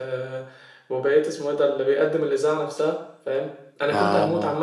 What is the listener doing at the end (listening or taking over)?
listening